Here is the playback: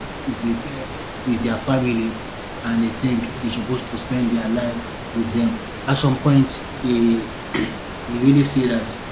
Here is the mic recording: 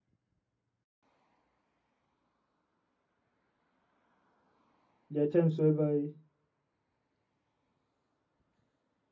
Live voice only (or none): There are times whereby